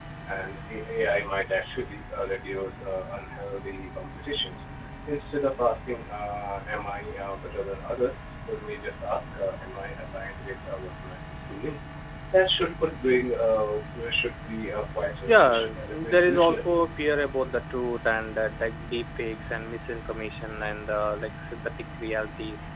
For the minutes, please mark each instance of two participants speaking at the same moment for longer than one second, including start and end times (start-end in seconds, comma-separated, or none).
15.3-16.8